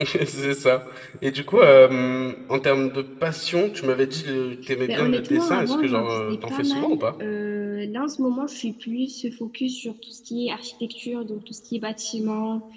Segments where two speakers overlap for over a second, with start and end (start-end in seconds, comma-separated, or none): 4.9-7.0